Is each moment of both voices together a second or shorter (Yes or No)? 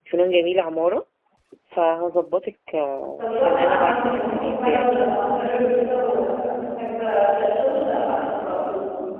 No